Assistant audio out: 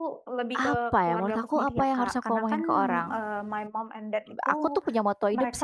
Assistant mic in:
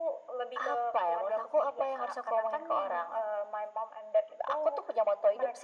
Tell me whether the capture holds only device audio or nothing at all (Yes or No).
Yes